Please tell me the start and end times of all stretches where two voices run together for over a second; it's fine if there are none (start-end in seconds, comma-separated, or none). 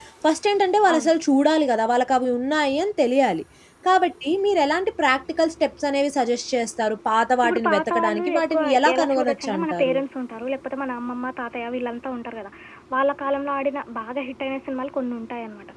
7.4-10.0